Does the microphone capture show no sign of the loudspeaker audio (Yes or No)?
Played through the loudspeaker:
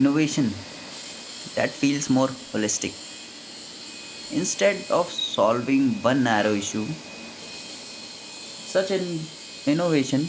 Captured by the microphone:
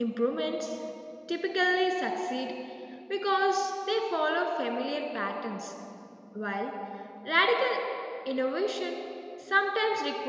Yes